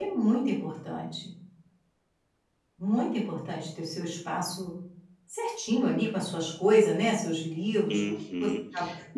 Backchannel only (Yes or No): No